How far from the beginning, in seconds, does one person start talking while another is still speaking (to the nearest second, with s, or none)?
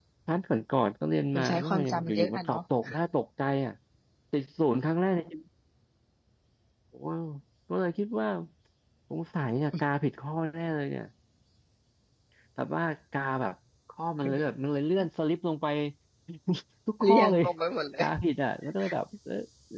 1 s